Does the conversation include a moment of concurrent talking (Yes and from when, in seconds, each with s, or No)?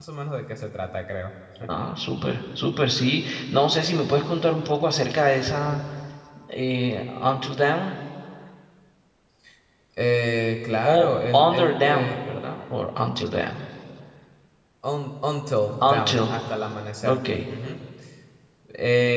Yes, from 10.8 s